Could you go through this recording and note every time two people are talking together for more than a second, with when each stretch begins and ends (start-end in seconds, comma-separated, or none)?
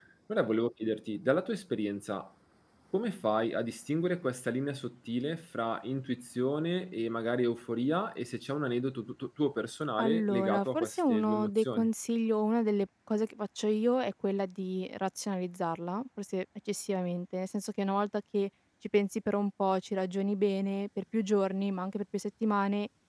10.0-11.9